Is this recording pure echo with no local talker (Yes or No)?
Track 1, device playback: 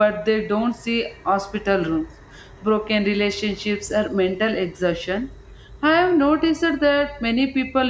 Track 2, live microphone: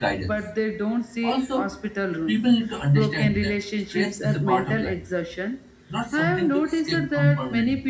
No